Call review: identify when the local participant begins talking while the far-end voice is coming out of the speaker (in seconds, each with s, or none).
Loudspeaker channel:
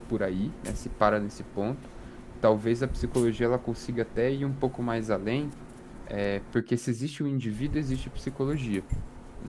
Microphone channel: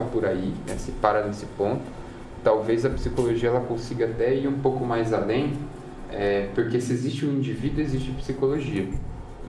none